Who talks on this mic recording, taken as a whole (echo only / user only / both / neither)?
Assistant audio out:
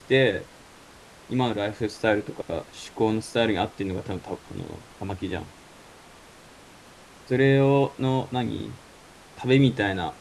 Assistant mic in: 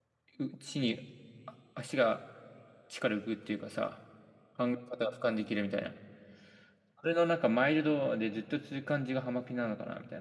user only